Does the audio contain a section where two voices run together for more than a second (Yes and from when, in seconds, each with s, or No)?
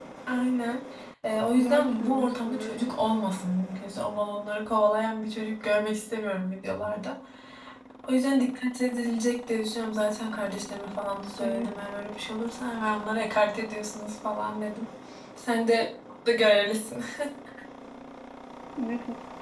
Yes, from 1.6 s